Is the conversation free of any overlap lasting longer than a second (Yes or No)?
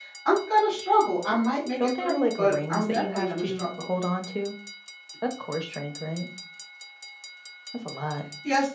No